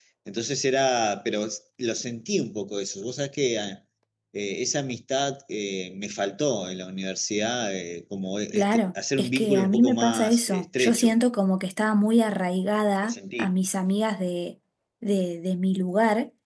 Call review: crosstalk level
present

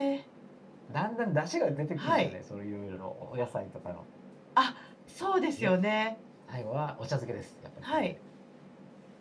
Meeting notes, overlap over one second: none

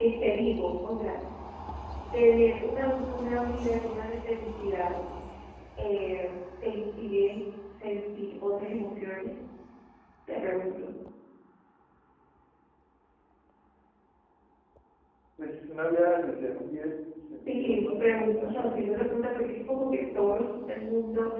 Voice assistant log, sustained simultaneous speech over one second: present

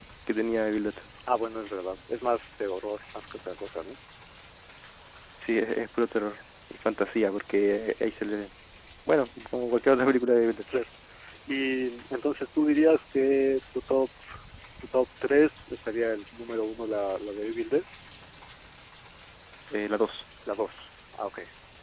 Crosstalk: none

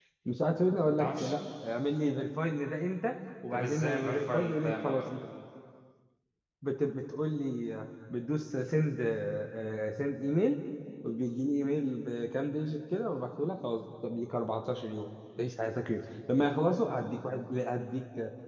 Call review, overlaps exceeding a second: present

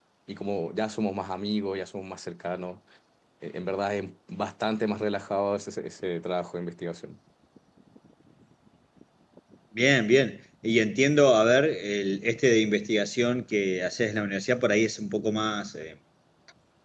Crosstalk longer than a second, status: none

